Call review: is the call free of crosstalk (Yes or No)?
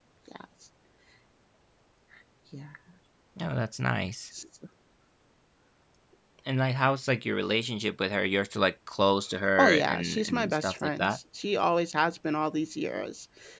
No